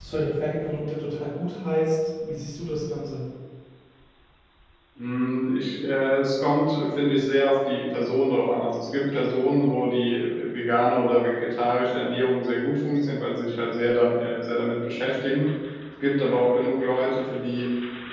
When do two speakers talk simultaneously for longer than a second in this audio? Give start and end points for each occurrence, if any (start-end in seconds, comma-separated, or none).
none